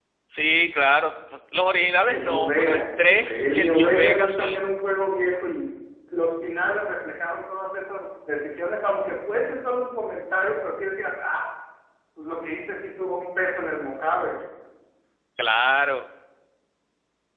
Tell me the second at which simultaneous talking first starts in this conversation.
2.1 s

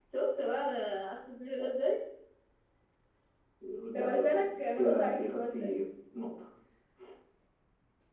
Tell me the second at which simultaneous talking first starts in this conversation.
3.9 s

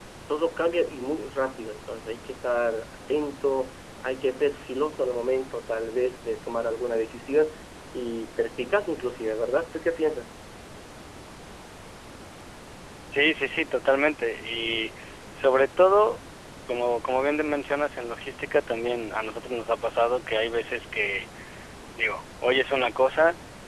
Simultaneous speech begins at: none

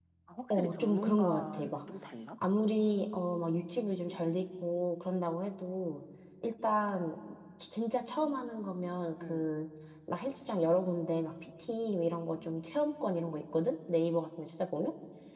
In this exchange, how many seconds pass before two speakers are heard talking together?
0.5 s

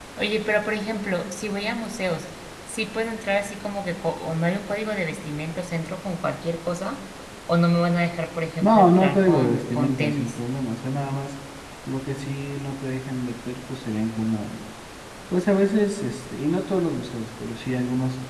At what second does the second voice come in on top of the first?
8.6 s

